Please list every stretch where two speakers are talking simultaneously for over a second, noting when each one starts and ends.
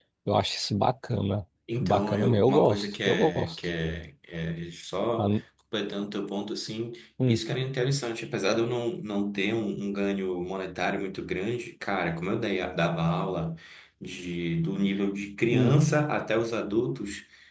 1.8-3.6

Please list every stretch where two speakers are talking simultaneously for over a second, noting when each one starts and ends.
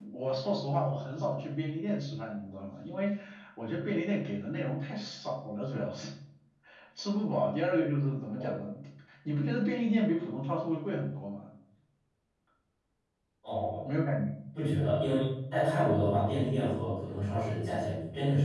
none

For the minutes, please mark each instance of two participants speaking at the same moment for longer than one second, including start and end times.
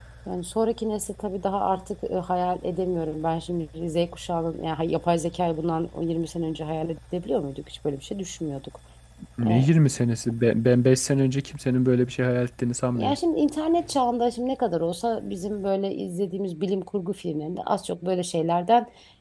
none

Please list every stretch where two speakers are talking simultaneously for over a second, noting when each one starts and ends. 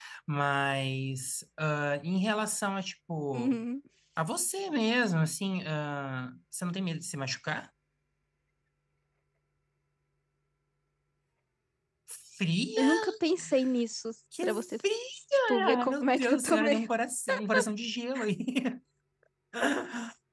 15.5-16.9

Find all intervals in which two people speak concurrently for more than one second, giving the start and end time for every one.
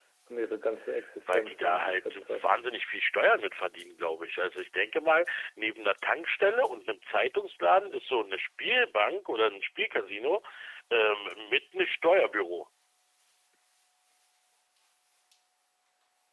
1.3-2.6

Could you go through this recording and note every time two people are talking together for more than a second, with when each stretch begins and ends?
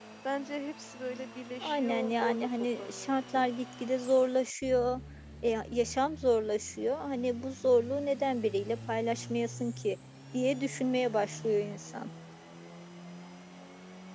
1.6-3.5

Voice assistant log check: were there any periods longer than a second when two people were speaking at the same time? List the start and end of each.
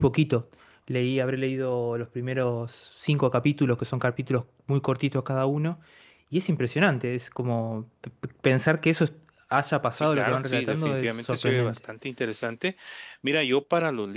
9.9-11.8

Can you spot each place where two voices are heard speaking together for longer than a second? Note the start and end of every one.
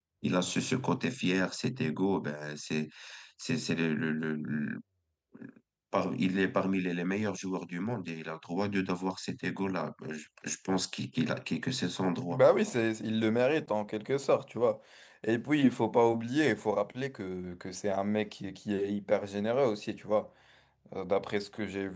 none

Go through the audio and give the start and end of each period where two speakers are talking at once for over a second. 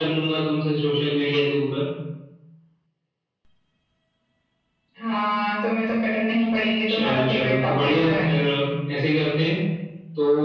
6.9-8.2

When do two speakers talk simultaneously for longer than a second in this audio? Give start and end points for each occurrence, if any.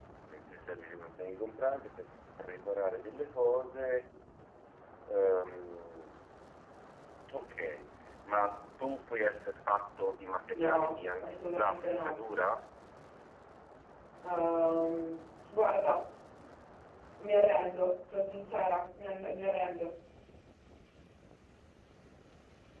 10.5-12.1

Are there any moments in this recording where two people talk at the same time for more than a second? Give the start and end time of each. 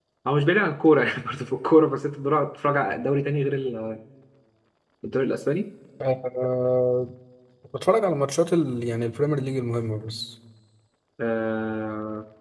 none

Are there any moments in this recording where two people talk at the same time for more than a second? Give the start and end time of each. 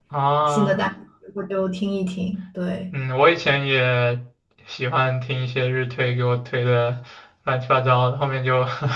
none

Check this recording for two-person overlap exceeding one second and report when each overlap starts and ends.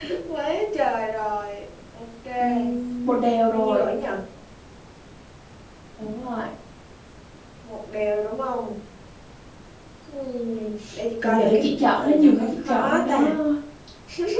12.0-13.2

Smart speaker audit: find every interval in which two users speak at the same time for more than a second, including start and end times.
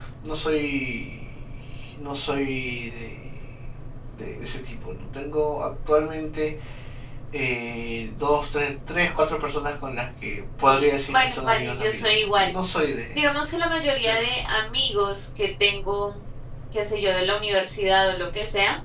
10.6-12.5

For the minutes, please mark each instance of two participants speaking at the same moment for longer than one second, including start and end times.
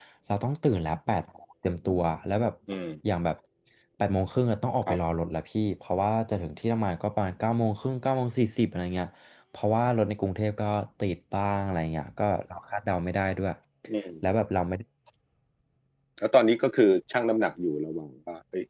none

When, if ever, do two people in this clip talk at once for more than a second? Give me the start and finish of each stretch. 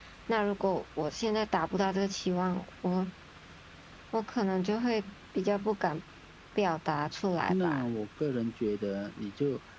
none

